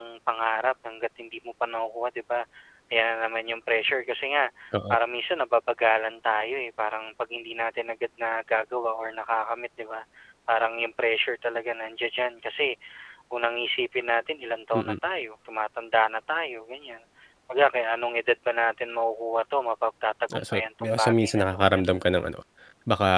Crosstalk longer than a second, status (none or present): present